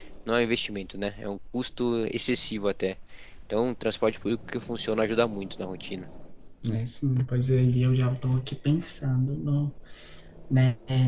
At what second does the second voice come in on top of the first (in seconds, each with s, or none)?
none